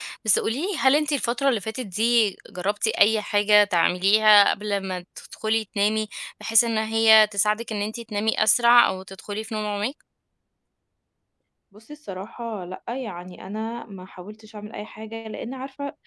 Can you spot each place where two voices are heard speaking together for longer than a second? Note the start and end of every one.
none

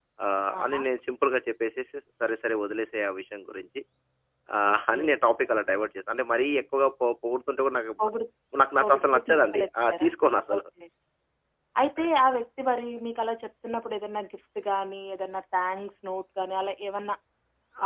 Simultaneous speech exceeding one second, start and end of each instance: 8.8-10.1

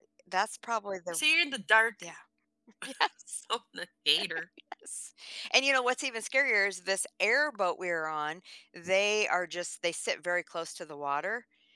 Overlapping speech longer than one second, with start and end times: none

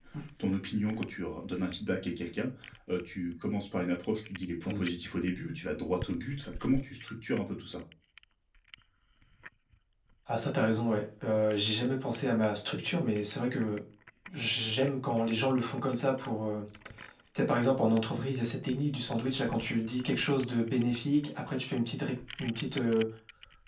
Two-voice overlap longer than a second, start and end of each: none

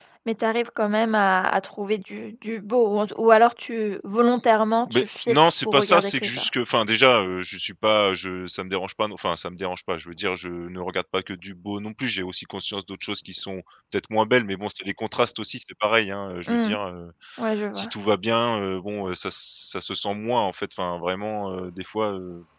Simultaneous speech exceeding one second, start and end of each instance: 4.9-6.5

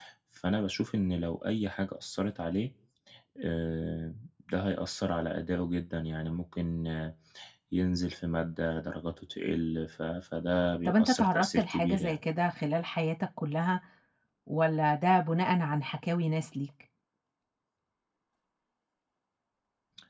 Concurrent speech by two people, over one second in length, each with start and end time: 10.8-12.2

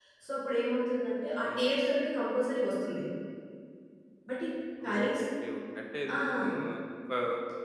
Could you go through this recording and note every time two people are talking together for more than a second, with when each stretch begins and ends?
none

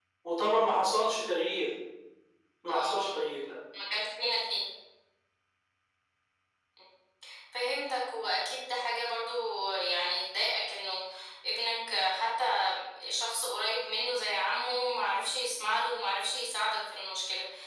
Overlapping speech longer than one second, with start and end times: none

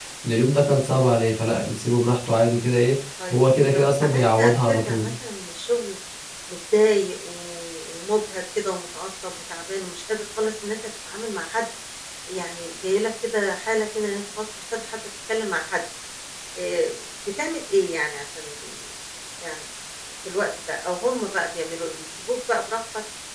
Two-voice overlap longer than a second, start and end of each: 3.3-5.1

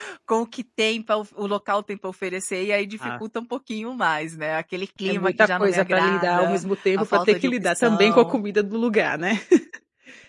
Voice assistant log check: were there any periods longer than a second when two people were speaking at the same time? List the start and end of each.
5.1-8.4

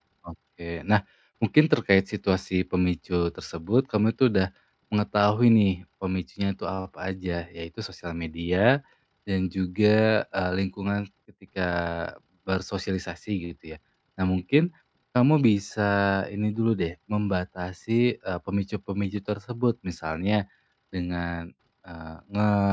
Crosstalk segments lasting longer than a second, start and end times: none

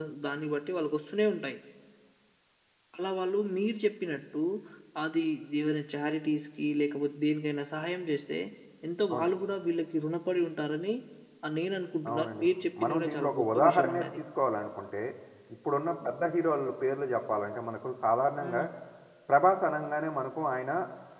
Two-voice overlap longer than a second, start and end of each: 12.8-14.2

